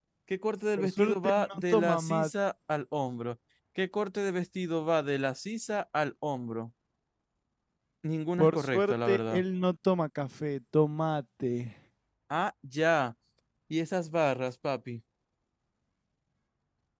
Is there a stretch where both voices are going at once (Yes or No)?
Yes